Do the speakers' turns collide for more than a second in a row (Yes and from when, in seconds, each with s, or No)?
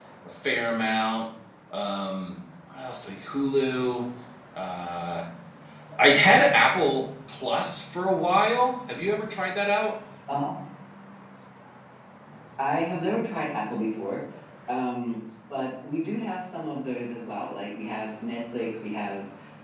No